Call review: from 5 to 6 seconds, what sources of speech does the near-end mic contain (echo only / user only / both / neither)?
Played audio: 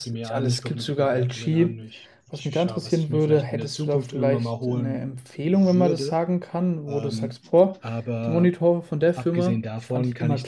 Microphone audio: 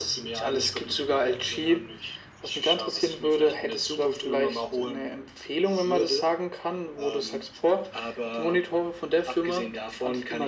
echo only